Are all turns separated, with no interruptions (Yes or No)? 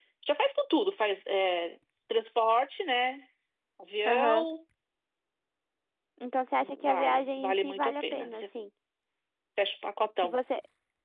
No